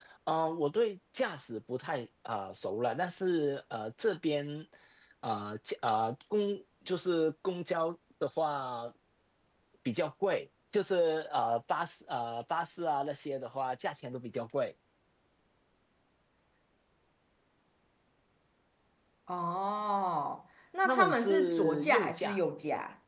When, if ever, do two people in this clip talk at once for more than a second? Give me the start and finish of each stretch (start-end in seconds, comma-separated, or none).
20.9-22.4